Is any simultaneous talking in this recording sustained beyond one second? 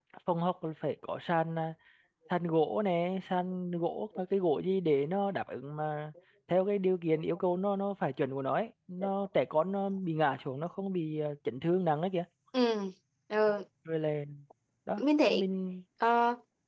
No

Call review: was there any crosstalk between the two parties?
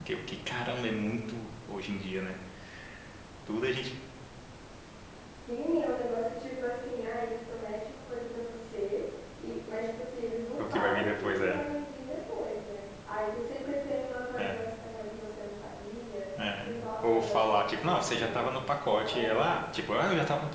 Yes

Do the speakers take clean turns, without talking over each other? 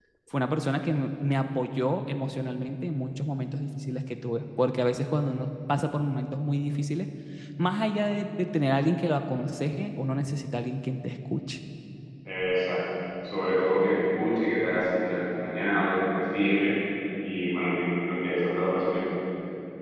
Yes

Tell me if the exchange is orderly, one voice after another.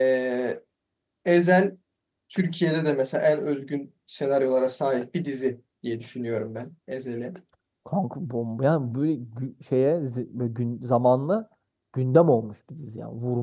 Yes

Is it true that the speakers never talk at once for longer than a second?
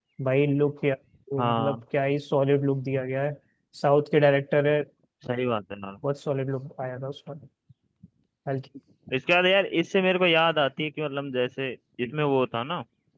Yes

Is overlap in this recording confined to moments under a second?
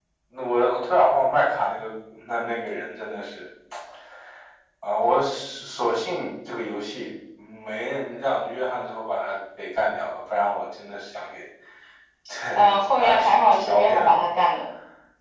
No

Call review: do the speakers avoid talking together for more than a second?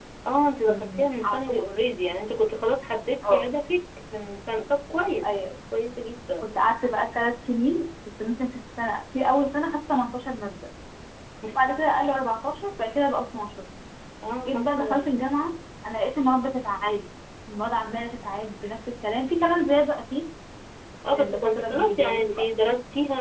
No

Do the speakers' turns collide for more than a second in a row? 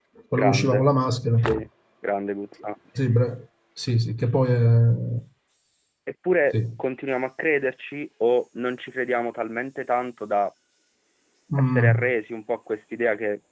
No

